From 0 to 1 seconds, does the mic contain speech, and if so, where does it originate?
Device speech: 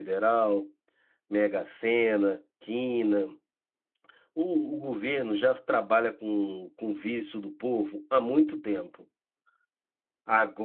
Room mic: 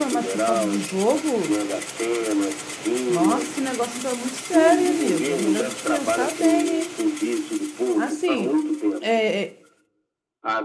both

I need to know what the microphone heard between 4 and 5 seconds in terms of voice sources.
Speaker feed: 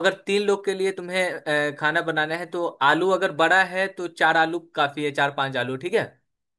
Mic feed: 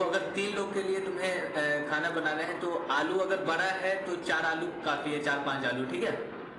echo only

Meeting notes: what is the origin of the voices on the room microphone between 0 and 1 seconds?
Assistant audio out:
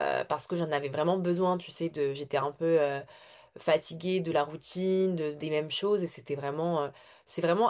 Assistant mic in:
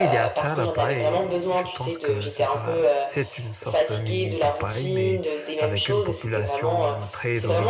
both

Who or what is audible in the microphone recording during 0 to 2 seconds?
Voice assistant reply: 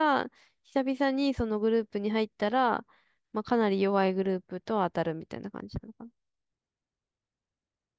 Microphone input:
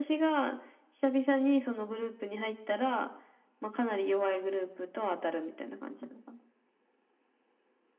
echo only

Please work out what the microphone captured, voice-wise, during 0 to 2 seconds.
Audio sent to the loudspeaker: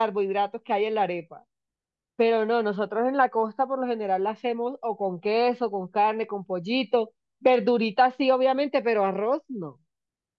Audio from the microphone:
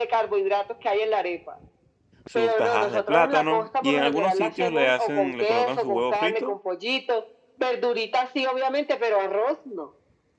echo only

